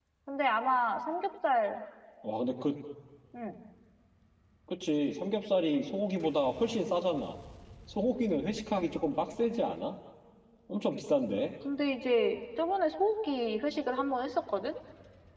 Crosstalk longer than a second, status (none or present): none